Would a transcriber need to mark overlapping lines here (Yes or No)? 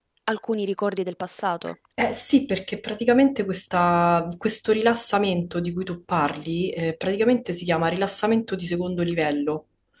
No